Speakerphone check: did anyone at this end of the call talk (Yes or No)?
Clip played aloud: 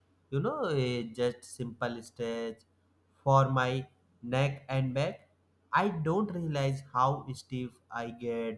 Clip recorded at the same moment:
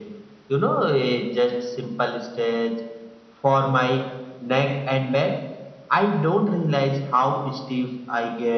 No